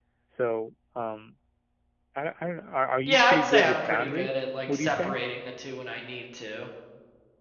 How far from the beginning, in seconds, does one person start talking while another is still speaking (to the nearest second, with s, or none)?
3 s